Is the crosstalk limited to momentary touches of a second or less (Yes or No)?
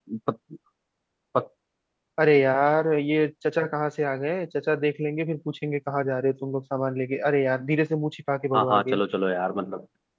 Yes